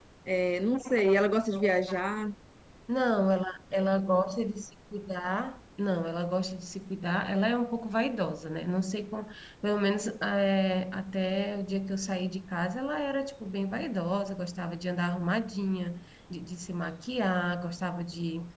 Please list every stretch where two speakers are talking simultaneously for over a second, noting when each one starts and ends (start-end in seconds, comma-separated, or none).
none